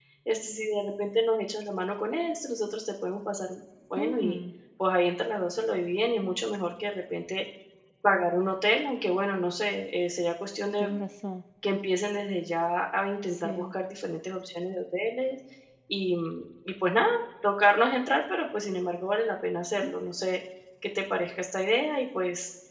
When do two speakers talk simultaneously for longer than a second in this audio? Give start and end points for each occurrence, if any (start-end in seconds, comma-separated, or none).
none